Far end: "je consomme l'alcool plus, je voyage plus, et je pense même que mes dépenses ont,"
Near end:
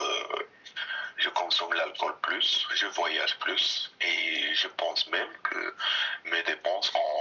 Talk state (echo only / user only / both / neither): echo only